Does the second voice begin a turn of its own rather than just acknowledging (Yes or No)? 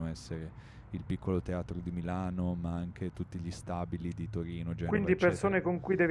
Yes